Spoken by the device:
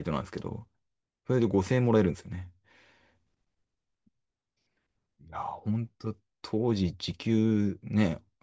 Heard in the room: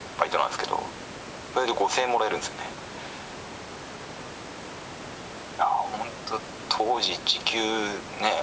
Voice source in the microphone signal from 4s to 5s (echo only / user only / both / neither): neither